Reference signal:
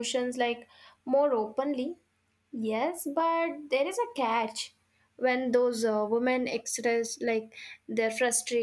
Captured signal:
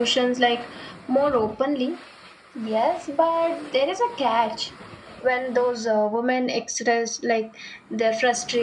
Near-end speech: none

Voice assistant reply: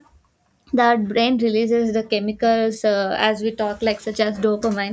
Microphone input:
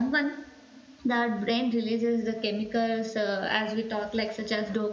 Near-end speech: none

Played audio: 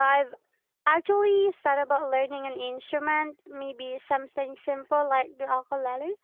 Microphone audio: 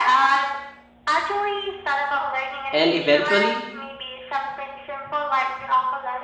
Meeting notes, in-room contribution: present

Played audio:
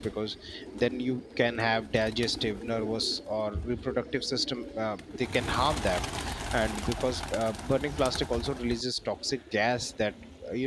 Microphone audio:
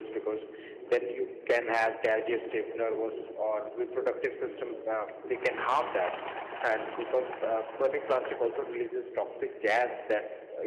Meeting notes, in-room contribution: none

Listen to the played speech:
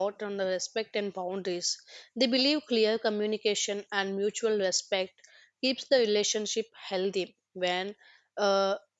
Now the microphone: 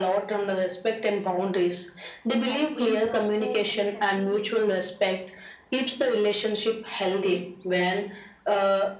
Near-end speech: present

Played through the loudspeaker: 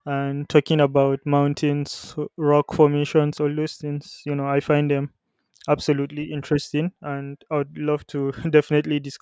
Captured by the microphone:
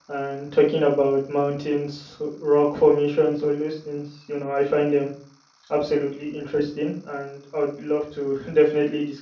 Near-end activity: none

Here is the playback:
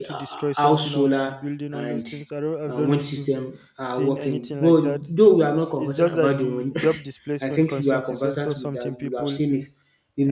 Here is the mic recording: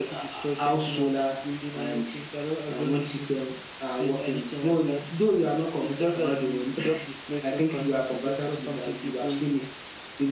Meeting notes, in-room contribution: none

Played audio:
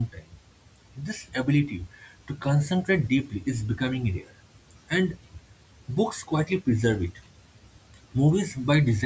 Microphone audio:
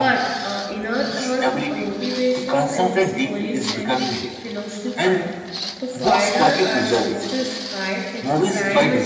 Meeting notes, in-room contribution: present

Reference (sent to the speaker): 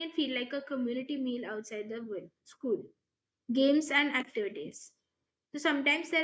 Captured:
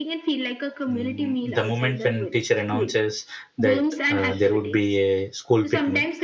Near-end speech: present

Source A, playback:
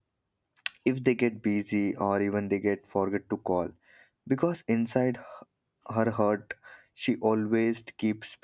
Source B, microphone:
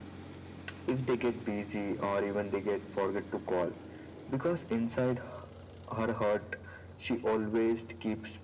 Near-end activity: none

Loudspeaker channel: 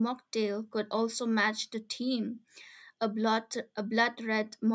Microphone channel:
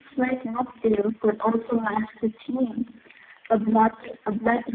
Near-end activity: none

